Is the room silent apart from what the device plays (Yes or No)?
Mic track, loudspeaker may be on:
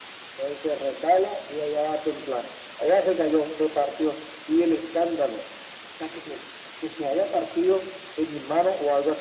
Yes